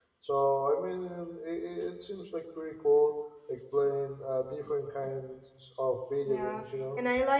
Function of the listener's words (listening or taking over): taking over